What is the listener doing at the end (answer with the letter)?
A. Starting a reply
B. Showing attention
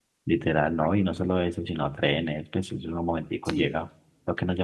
B